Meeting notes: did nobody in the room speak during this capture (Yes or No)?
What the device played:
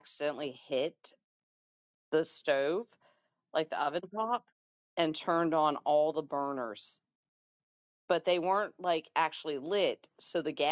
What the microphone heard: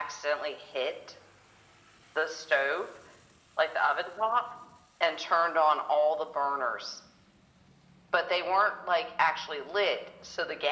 Yes